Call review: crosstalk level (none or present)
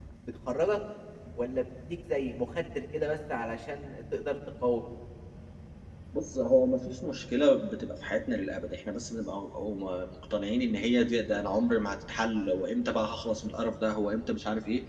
none